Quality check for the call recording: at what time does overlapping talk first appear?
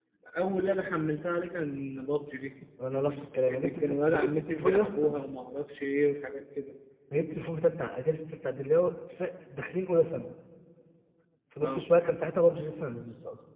3.5 s

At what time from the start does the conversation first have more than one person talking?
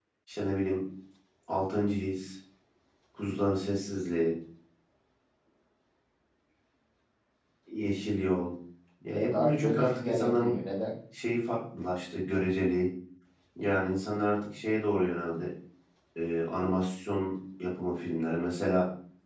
9.1 s

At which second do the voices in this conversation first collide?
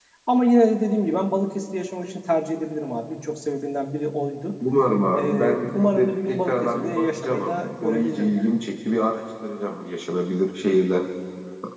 5.2 s

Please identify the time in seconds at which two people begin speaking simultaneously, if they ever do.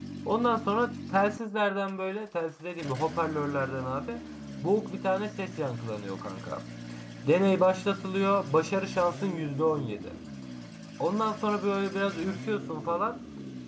none

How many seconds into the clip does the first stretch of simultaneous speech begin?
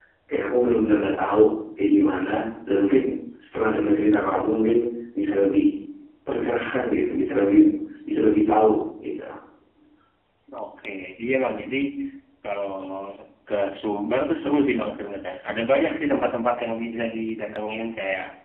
none

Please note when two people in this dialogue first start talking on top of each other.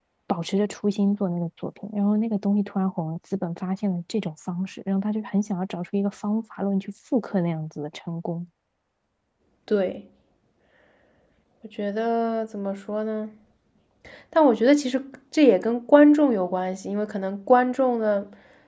none

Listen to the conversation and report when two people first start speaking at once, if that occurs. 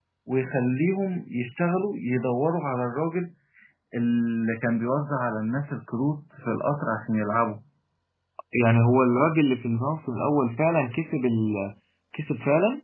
none

